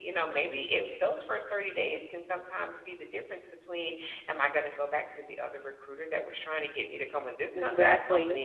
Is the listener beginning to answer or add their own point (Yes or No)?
No